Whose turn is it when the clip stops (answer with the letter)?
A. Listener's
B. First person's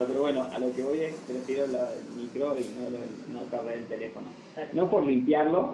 B